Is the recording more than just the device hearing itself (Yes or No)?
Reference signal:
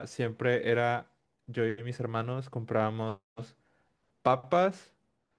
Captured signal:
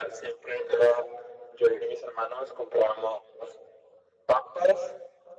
No